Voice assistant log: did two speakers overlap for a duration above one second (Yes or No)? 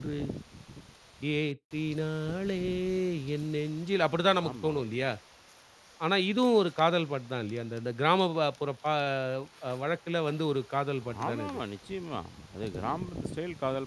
No